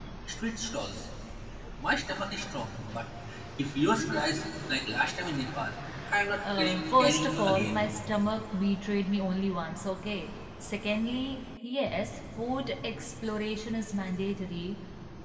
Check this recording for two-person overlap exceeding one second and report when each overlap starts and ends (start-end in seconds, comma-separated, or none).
6.4-7.9